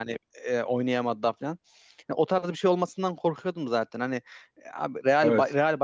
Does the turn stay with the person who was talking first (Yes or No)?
Yes